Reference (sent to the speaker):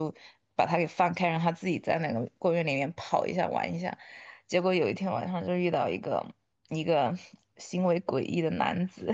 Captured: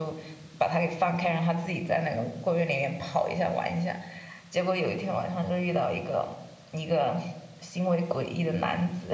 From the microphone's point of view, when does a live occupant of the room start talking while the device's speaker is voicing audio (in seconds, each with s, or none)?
none